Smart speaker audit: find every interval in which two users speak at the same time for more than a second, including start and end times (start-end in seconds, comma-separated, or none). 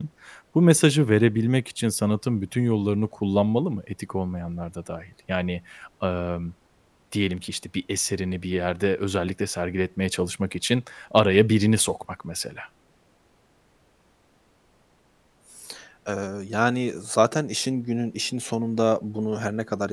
none